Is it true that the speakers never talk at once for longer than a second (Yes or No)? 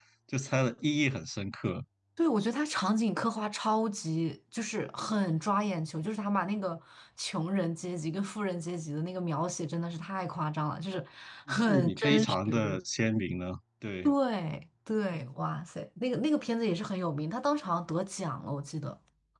No